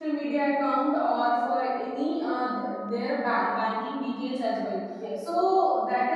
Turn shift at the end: No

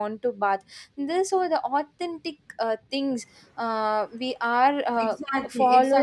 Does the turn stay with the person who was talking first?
No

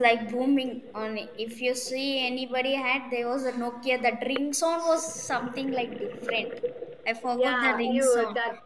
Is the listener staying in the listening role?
No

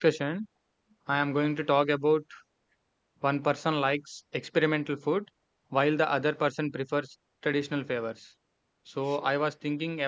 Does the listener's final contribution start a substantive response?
No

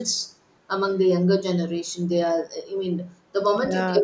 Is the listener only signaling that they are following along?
No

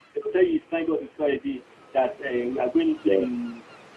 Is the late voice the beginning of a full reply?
No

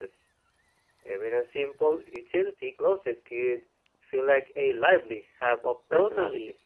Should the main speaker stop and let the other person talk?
Yes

